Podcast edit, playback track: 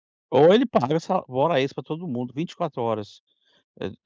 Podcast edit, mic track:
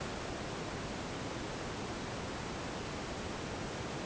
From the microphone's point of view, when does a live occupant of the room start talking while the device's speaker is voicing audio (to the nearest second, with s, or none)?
none